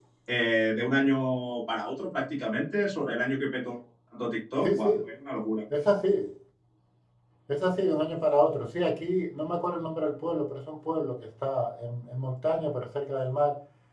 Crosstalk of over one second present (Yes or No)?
No